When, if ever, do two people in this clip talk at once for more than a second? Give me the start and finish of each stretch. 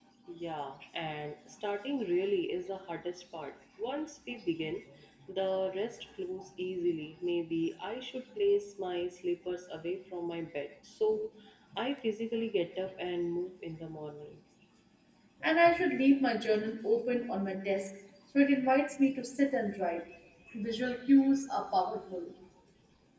none

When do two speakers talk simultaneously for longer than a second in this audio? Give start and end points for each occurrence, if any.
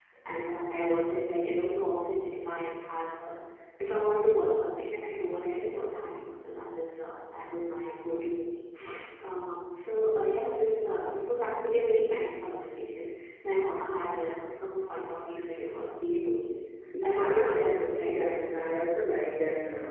17.0-18.4

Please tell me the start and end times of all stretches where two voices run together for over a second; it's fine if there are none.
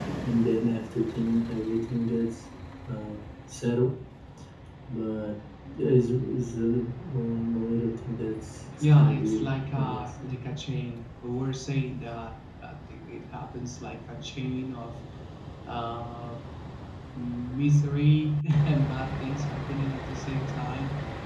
8.9-10.1

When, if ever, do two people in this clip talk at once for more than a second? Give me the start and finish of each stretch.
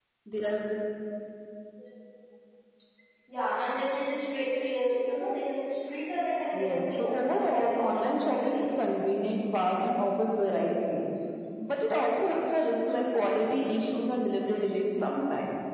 6.5-8.6

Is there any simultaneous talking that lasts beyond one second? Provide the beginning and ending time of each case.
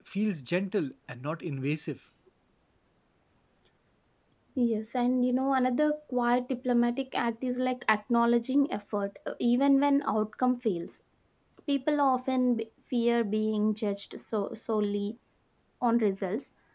none

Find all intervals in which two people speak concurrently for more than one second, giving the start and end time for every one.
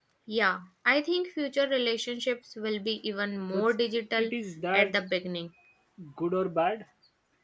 none

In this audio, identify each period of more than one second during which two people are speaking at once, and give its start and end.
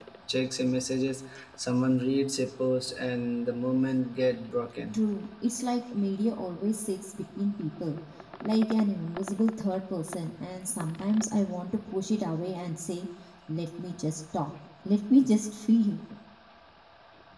none

